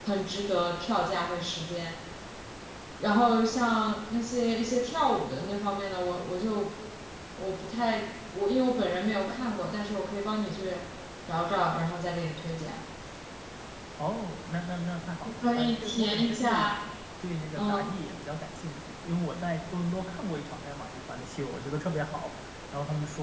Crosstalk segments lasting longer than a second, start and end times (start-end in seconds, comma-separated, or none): 15.4-16.7